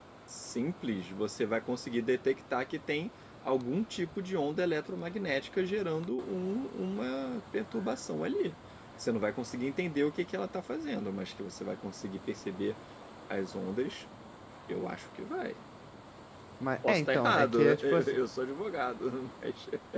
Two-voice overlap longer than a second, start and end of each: 16.8-18.2

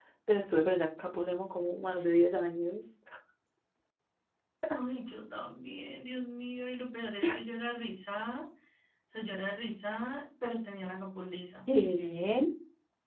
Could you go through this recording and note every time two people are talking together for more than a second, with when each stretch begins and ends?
none

